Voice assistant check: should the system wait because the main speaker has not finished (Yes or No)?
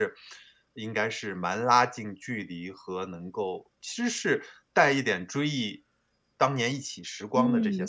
No